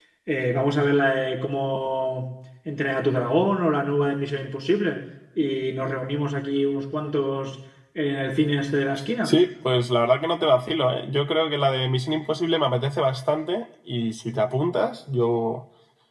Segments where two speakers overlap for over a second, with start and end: none

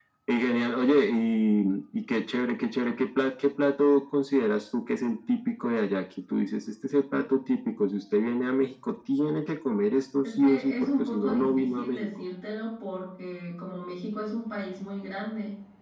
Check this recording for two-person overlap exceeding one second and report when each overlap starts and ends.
10.2-12.1

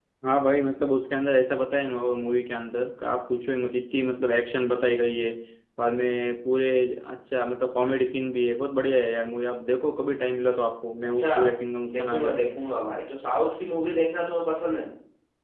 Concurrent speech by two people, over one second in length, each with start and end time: none

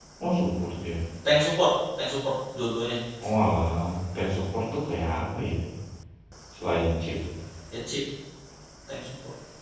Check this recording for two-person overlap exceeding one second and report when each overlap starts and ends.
none

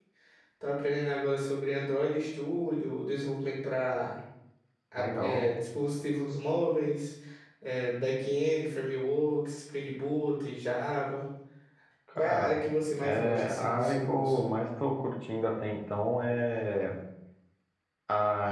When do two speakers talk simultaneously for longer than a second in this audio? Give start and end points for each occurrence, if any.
13.0-14.4

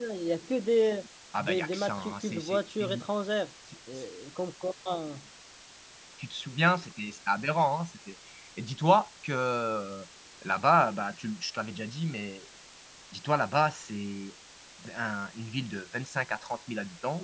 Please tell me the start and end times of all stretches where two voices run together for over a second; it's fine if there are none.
1.4-3.0

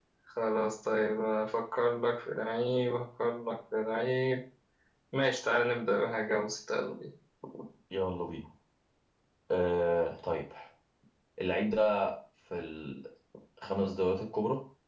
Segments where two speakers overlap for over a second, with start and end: none

